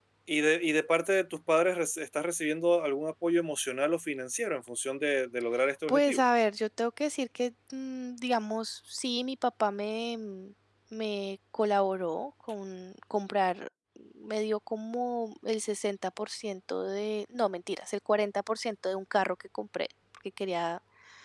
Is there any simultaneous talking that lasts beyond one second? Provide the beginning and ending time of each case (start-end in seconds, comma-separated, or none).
none